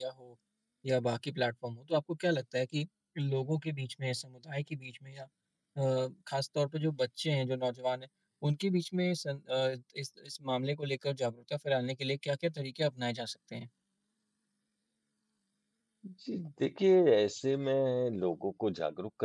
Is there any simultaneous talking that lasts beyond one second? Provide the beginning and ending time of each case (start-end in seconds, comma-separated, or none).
none